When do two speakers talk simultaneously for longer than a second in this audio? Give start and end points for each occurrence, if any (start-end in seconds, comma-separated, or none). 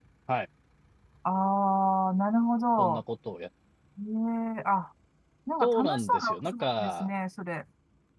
5.6-7.1